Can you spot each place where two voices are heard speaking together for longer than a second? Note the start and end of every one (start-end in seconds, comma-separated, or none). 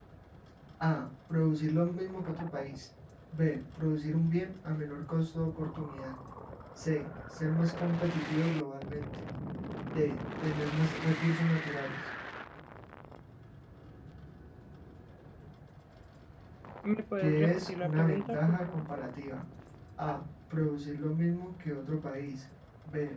17.2-18.9